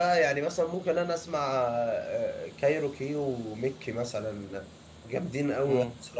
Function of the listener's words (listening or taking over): taking over